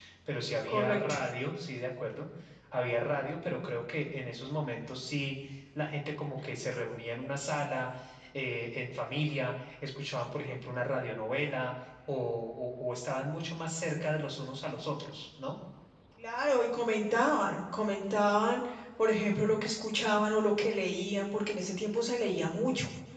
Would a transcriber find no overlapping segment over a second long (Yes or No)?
Yes